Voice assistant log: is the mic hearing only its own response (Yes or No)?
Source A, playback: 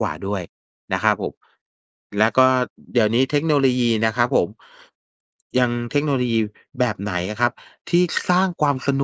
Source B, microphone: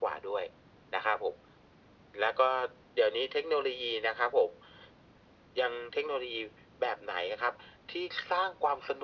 Yes